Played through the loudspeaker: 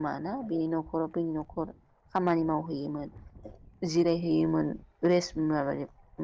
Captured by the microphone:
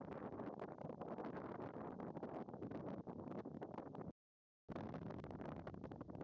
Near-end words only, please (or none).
none